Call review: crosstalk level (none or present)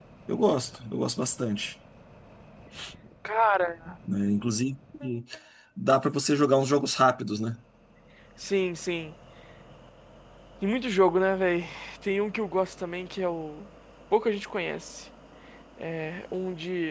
none